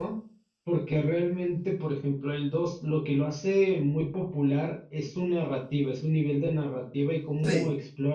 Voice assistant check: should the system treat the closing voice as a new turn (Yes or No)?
No